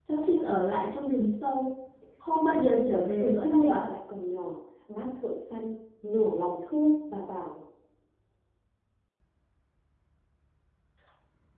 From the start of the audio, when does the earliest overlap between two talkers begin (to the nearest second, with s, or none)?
2 s